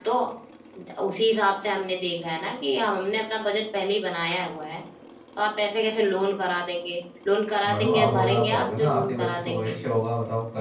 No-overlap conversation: No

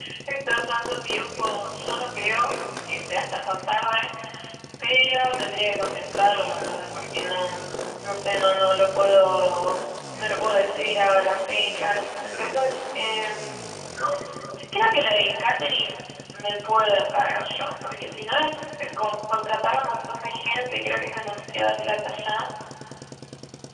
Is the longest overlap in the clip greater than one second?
No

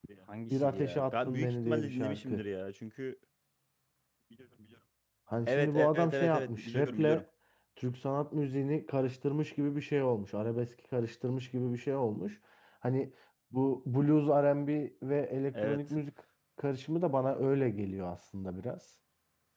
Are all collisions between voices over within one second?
No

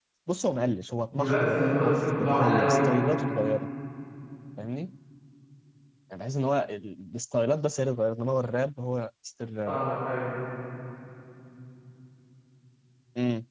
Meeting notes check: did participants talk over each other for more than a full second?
Yes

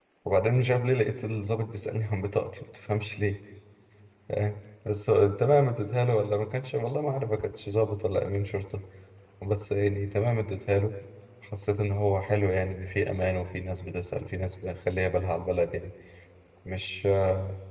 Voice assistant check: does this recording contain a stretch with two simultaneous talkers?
No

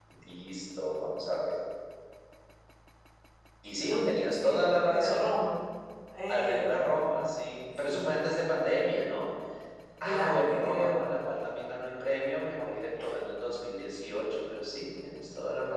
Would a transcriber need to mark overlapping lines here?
Yes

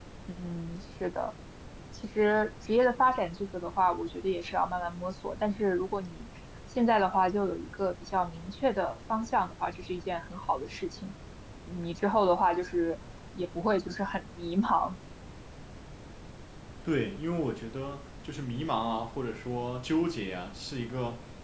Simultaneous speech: No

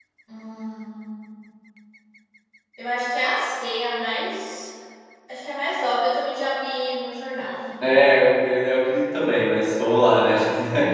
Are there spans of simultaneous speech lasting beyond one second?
No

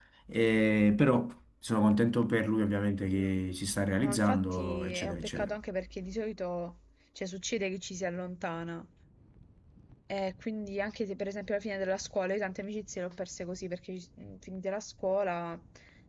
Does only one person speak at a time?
No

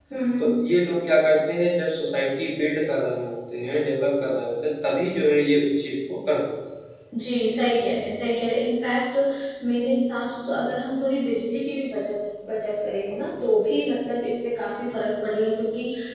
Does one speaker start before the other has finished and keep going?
No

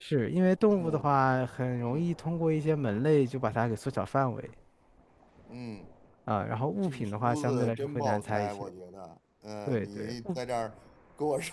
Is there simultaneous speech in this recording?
Yes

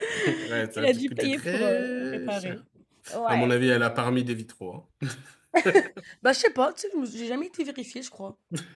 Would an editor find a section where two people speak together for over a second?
Yes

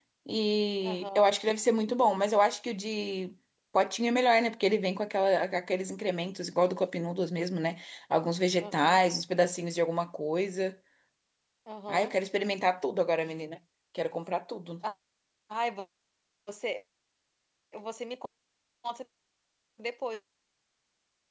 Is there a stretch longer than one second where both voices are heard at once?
No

